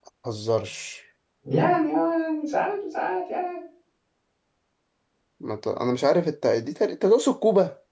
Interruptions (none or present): none